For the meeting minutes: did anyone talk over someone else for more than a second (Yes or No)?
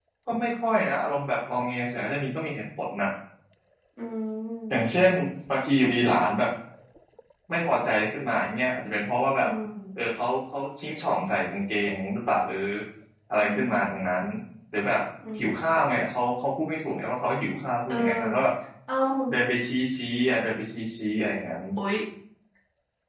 No